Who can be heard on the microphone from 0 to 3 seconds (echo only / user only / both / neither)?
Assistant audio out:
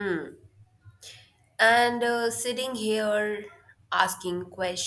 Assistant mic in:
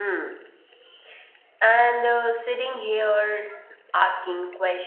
echo only